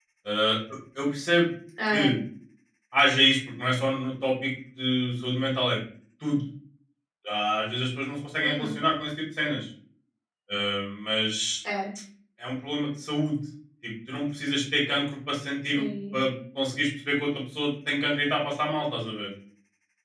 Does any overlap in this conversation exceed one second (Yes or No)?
No